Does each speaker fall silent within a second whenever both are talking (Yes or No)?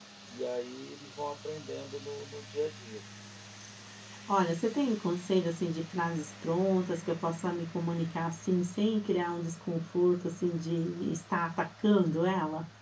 Yes